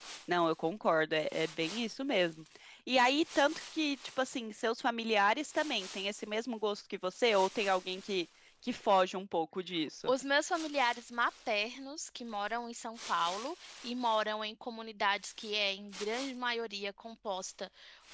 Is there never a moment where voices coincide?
Yes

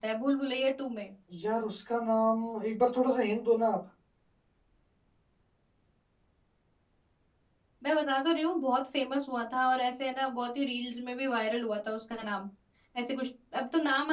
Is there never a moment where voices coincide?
Yes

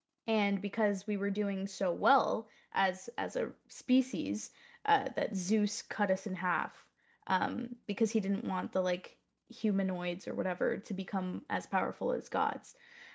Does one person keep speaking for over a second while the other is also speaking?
No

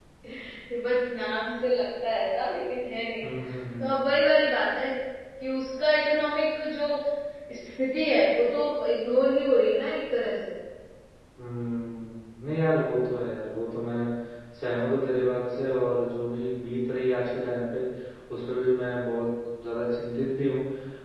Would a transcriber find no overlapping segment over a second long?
Yes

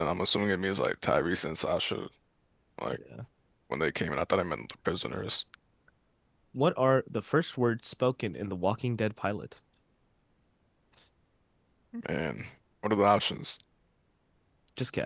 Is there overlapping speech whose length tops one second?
No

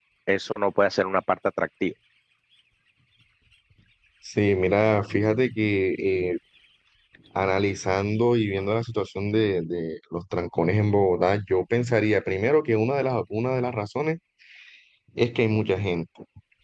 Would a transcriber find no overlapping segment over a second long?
Yes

